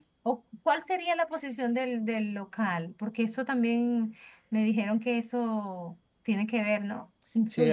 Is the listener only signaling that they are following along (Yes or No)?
No